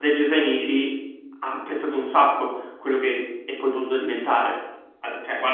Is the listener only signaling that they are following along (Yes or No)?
Yes